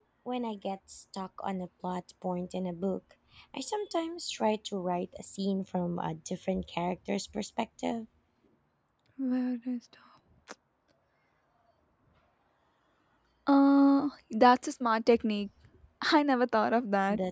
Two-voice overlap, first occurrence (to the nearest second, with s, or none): none